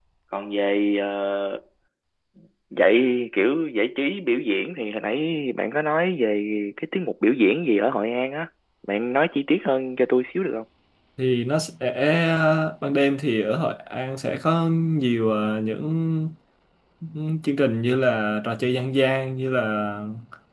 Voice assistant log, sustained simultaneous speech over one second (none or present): none